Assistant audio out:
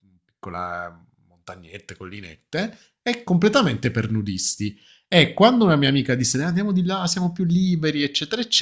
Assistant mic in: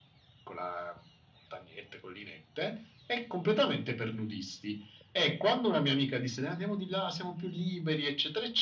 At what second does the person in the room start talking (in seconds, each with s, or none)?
none